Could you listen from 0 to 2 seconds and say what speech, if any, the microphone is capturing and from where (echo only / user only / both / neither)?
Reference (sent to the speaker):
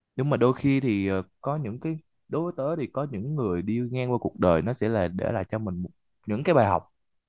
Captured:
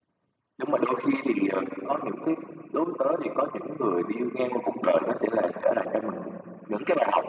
echo only